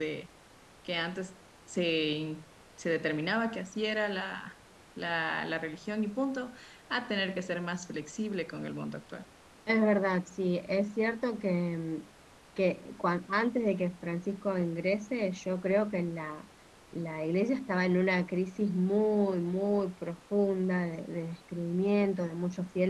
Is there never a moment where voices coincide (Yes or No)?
Yes